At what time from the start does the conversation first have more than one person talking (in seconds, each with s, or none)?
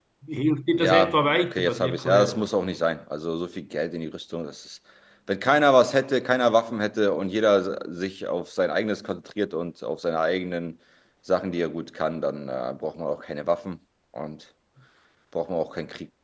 0.8 s